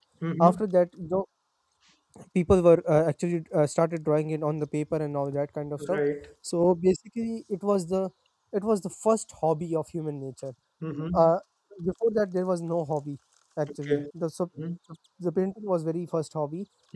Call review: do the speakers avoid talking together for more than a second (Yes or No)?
Yes